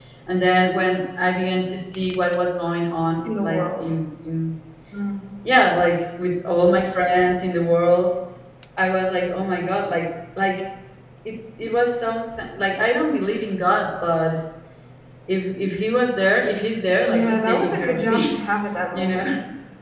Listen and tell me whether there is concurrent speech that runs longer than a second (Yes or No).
Yes